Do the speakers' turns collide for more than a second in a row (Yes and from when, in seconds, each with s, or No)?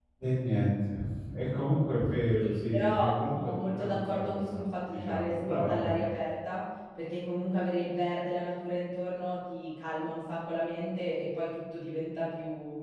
Yes, from 2.4 s